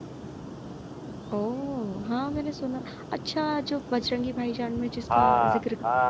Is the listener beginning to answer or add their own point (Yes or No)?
Yes